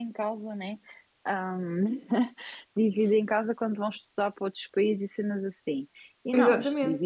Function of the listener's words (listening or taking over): listening